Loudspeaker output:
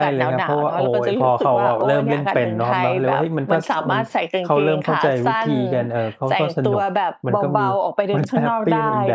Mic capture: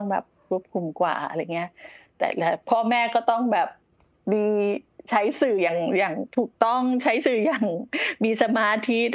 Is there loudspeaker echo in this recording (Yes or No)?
No